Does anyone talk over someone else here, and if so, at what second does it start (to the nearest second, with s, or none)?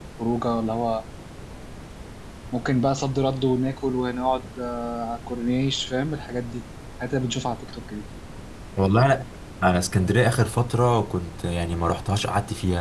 none